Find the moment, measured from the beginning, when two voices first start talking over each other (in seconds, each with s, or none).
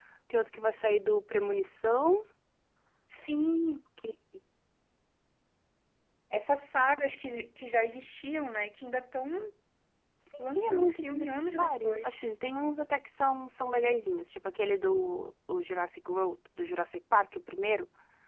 10.4 s